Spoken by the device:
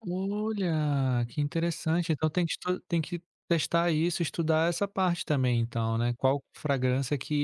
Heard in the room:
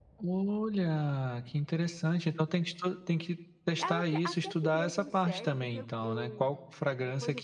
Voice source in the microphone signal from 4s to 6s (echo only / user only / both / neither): both